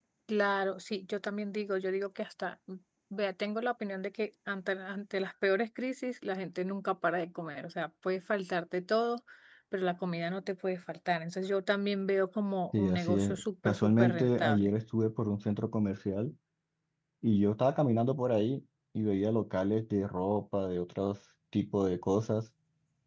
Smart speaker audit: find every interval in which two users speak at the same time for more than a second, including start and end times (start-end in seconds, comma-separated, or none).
12.8-14.7